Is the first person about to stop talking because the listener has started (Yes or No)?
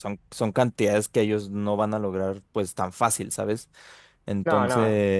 No